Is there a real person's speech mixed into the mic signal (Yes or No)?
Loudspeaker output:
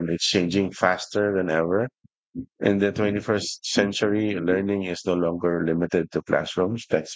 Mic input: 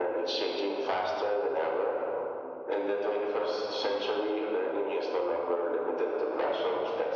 No